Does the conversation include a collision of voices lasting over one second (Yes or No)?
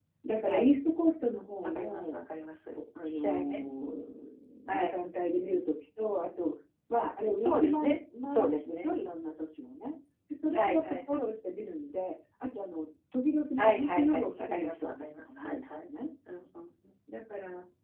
Yes